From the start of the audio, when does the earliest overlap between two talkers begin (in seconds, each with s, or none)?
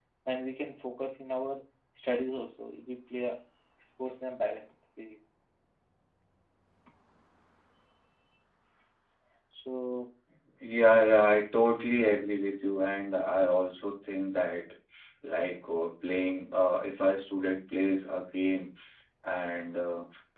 none